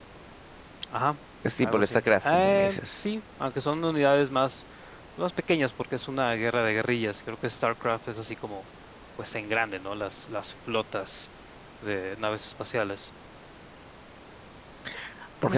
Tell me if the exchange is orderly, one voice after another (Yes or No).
No